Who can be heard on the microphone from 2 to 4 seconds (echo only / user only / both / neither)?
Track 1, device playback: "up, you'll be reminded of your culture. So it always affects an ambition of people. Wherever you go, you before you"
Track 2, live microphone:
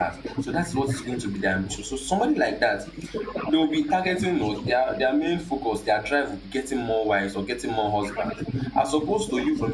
both